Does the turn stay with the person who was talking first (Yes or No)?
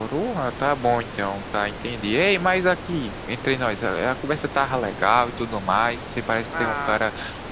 Yes